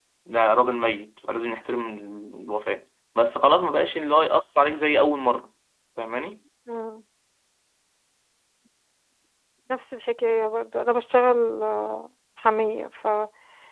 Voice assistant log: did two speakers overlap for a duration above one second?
No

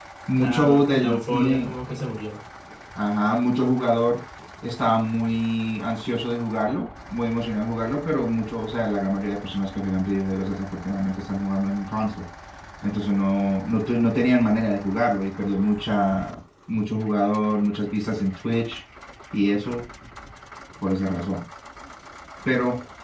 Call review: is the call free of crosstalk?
No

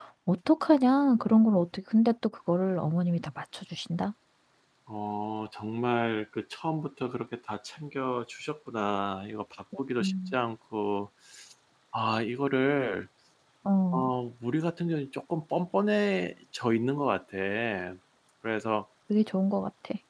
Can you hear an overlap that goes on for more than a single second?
No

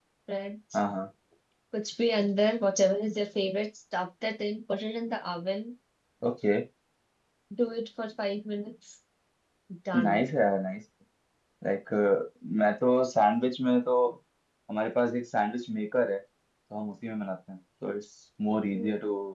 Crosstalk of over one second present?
No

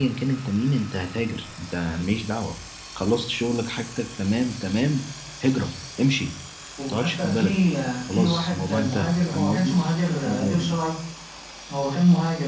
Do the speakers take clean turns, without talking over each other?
No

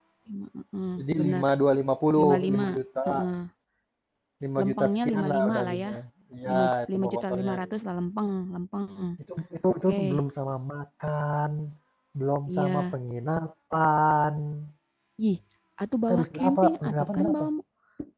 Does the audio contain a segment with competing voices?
Yes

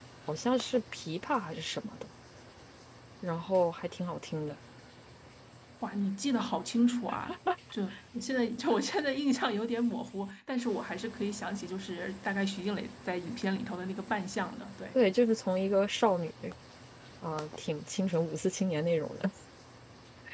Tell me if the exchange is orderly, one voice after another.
Yes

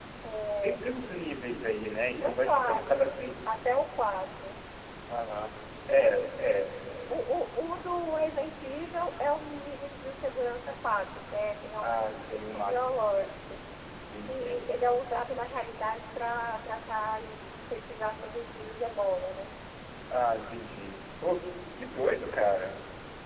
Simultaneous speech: Yes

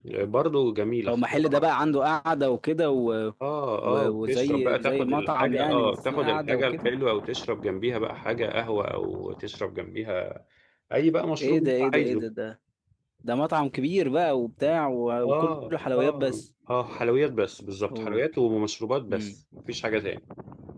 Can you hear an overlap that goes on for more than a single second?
Yes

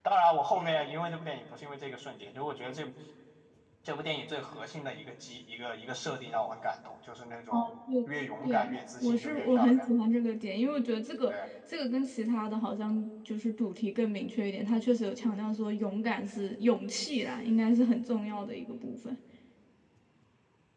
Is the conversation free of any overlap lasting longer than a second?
No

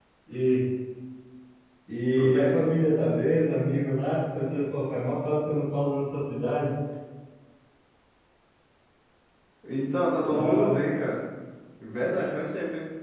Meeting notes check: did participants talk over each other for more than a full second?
No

